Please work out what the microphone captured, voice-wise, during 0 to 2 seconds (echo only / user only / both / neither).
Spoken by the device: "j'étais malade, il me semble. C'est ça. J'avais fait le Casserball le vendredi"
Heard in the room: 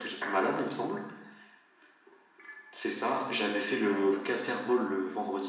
echo only